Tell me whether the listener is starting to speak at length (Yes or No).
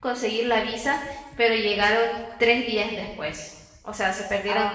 Yes